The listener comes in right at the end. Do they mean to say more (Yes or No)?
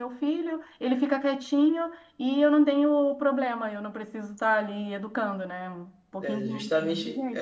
Yes